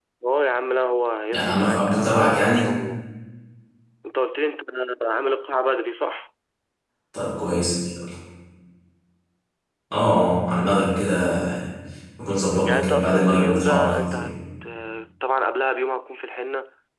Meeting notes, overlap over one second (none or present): present